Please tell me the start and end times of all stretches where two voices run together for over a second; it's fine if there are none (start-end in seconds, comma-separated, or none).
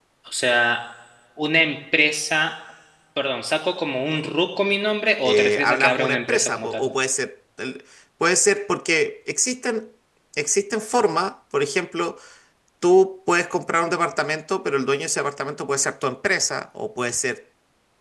5.2-6.8